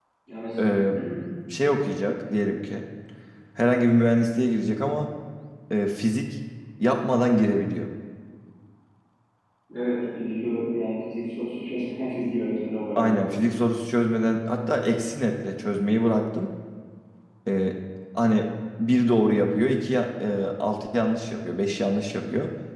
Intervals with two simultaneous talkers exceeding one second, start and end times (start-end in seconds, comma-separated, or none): none